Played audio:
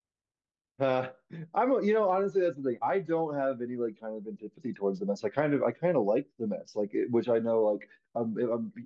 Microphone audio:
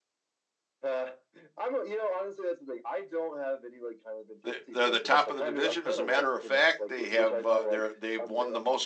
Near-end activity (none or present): present